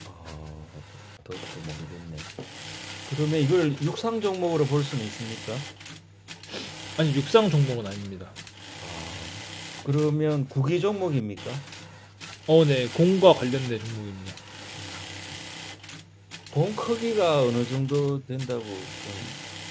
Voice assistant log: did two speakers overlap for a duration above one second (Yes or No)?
No